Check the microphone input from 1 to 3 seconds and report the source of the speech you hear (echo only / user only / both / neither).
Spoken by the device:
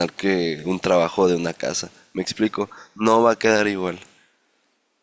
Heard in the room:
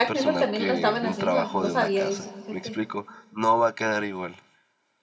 both